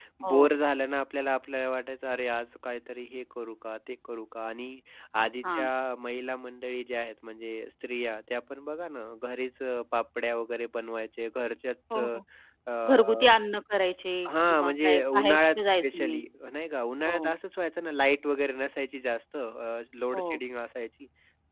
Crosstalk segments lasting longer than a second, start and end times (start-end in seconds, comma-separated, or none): 14.5-16.2